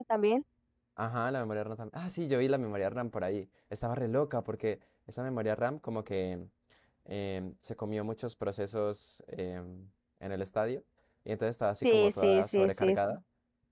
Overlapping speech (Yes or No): Yes